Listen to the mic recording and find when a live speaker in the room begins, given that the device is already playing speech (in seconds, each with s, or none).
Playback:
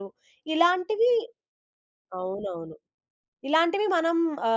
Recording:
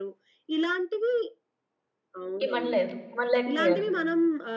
2.5 s